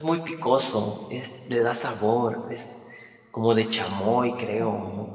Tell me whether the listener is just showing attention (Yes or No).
No